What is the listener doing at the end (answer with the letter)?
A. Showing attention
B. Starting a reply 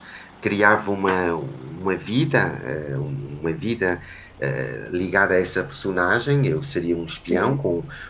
A